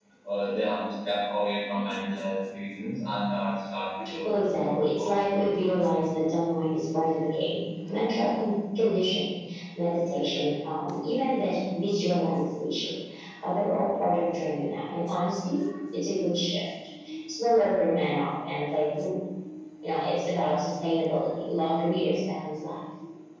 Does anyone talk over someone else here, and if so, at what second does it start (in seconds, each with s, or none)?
4.0 s